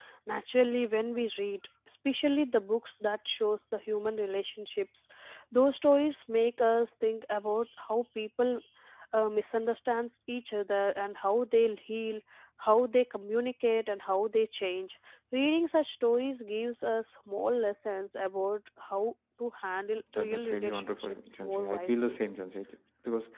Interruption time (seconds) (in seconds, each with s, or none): 20.1 s